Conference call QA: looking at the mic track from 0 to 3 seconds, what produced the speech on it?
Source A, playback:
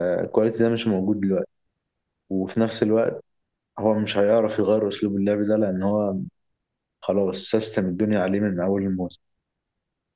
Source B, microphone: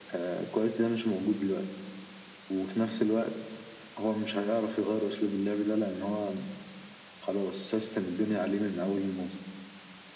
echo only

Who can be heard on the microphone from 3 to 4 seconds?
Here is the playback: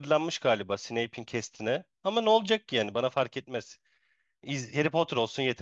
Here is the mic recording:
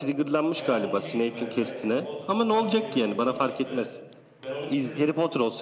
both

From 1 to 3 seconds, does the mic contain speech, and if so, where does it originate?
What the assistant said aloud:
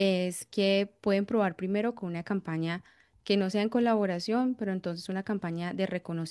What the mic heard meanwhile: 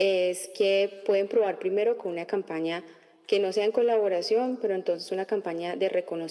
echo only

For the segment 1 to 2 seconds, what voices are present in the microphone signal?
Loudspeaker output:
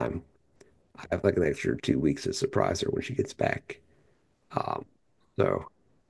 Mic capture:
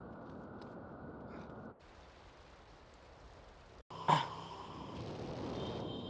neither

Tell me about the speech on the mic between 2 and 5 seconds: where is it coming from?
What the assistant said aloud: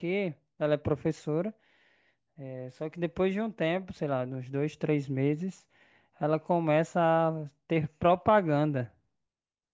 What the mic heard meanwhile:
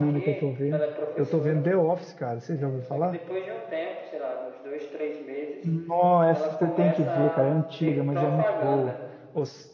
both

